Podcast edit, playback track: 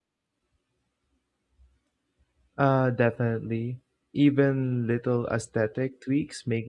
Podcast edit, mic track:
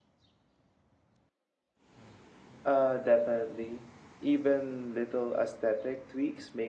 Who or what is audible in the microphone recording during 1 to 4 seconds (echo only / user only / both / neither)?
echo only